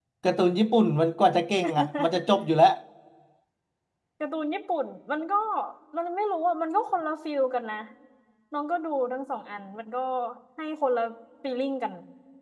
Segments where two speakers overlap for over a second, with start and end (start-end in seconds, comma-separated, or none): none